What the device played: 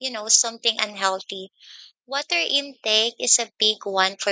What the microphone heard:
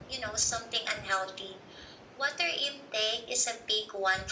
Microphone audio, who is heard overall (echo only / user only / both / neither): echo only